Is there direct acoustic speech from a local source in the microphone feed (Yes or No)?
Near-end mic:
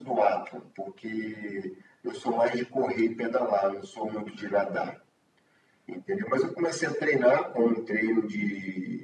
No